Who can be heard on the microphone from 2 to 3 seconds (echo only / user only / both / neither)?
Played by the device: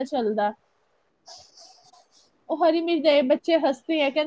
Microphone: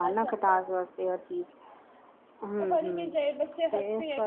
both